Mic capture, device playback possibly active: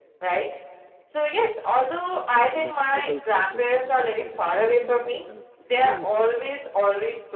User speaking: Yes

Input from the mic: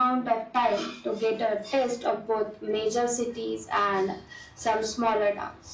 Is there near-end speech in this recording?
No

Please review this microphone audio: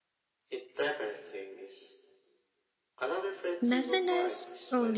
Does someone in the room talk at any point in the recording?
Yes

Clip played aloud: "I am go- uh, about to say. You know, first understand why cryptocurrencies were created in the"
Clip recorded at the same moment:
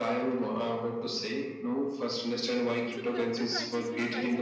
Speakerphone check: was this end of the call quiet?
No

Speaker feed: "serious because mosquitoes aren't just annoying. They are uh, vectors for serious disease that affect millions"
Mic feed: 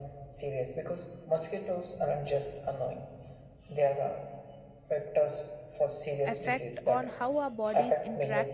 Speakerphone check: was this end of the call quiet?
No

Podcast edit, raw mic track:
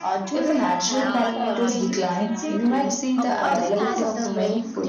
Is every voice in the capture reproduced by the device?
No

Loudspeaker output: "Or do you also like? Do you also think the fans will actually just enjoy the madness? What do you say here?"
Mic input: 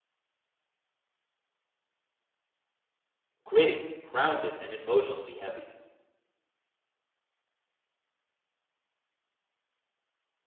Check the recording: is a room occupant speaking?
Yes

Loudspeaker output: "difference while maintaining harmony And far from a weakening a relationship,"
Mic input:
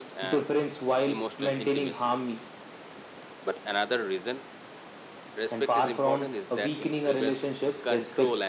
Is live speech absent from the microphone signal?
No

